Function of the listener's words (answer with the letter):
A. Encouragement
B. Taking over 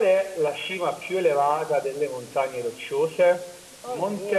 A